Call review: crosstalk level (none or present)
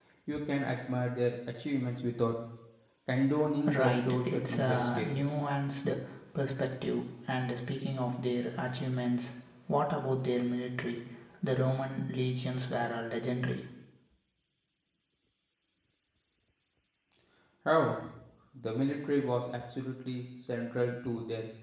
present